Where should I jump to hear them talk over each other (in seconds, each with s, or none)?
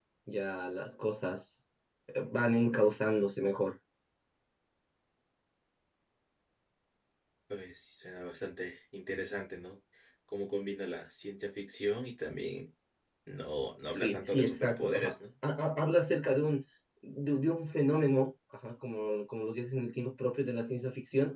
13.9 s